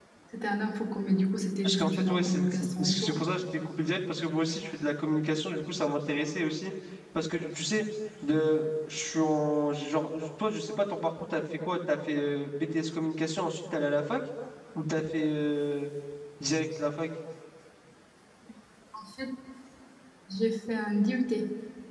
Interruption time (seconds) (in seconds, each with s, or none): 1.6 s